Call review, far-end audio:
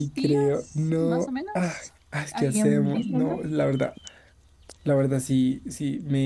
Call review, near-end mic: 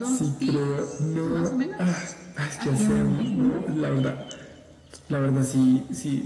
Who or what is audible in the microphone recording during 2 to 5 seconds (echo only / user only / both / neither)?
echo only